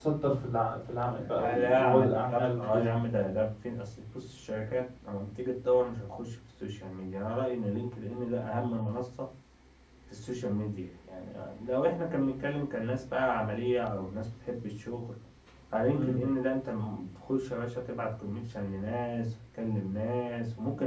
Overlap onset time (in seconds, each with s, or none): 1.2 s